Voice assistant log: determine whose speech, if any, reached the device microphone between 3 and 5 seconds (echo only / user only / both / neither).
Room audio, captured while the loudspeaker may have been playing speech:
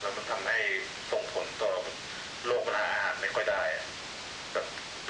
echo only